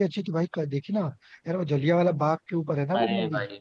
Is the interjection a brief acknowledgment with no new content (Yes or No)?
No